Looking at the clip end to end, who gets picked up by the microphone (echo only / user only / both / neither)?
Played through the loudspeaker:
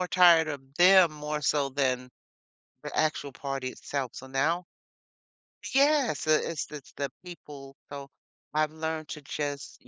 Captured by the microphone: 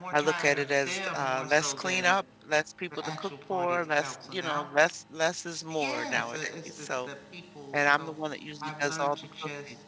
both